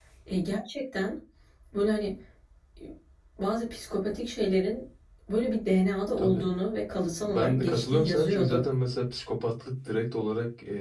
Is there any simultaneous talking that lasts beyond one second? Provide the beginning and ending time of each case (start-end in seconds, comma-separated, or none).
7.2-8.7